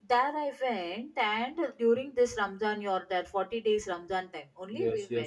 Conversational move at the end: taking over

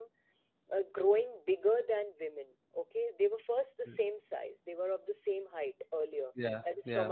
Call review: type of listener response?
listening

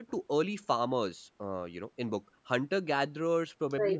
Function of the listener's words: listening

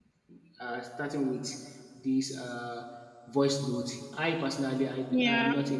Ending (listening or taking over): listening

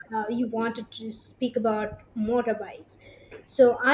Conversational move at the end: listening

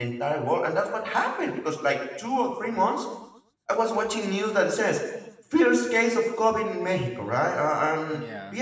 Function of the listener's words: listening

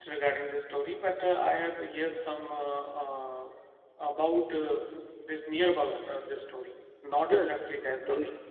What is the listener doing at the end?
taking over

